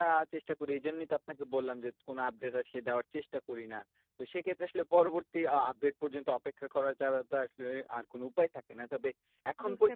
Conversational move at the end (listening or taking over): taking over